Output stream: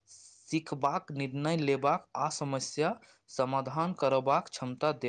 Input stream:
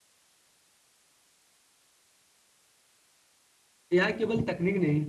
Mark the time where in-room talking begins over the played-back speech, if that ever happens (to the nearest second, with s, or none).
4 s